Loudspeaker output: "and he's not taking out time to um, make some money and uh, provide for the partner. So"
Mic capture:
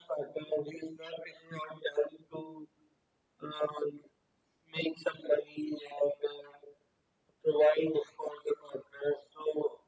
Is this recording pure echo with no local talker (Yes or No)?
Yes